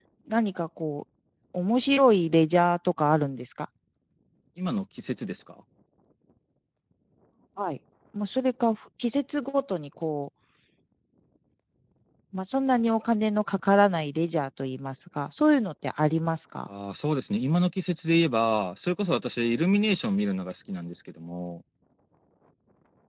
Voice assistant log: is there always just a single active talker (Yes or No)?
Yes